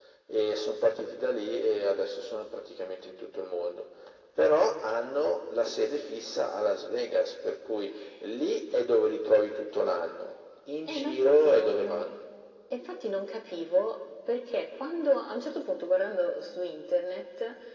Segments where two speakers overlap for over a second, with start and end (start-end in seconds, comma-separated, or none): 10.9-12.1